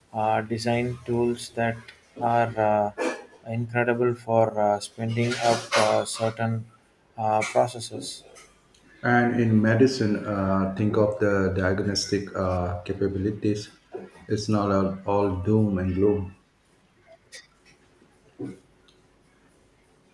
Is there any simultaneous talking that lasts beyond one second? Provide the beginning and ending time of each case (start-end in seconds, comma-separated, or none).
none